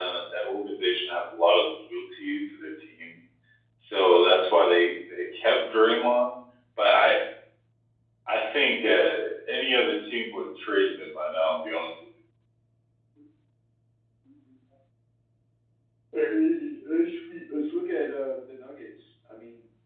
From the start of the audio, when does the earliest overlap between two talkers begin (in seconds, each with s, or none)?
none